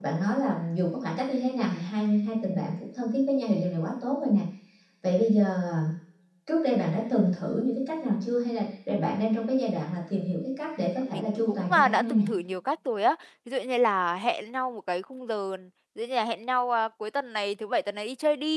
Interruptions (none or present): present